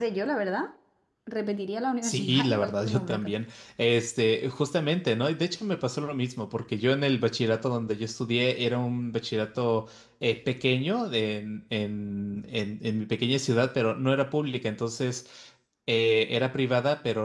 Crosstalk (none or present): present